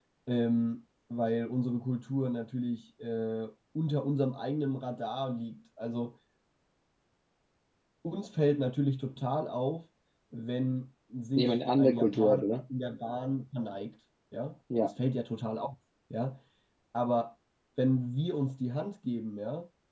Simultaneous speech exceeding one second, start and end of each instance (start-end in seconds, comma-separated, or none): 11.4-12.6